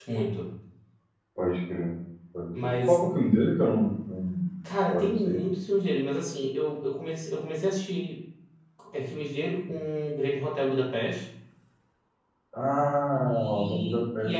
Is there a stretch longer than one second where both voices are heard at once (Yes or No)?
Yes